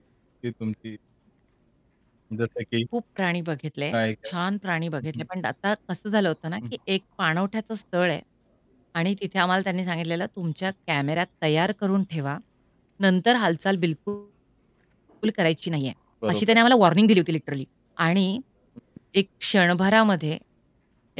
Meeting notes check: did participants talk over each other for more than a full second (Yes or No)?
No